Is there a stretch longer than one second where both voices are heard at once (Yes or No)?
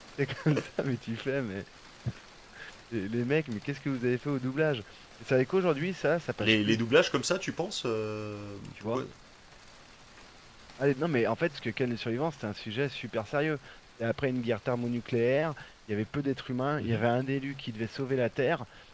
No